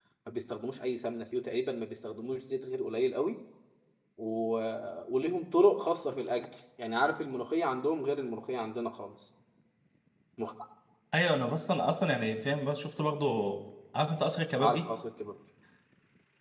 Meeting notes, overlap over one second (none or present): none